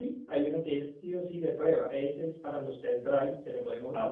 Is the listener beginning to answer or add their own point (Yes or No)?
Yes